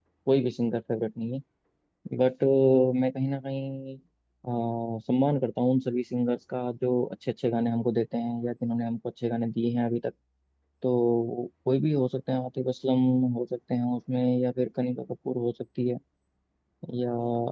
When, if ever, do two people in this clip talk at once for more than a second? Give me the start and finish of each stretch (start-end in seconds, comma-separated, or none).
none